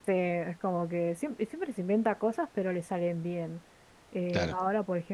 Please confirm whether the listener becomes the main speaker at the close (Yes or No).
No